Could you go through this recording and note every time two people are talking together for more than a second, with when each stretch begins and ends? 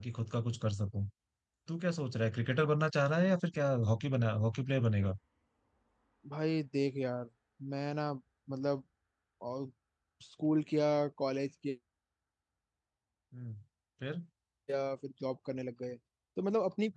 none

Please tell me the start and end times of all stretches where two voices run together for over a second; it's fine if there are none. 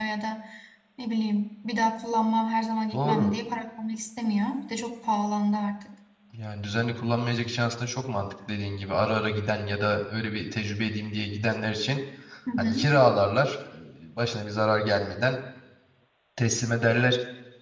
none

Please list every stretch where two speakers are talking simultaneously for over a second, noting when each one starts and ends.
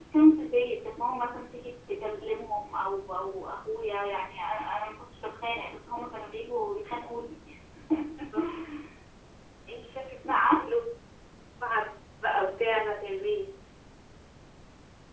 none

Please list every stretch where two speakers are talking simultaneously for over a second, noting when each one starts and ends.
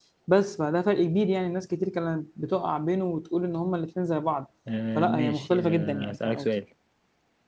5.0-6.5

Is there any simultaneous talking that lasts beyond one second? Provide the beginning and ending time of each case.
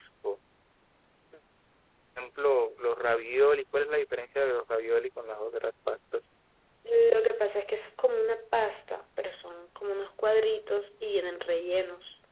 none

